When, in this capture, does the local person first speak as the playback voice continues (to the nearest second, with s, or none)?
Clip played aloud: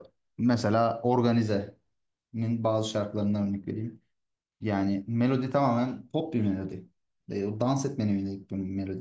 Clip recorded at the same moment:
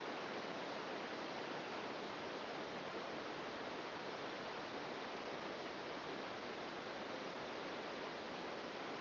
none